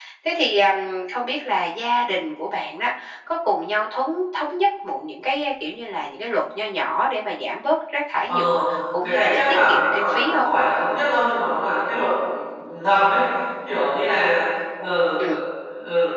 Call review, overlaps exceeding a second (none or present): present